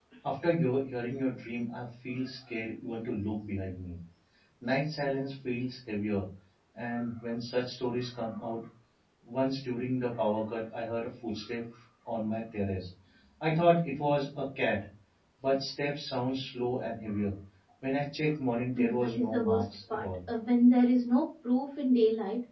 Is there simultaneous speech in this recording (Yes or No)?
Yes